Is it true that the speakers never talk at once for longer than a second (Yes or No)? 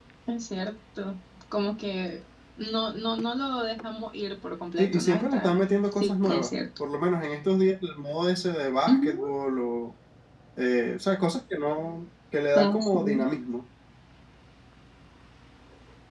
No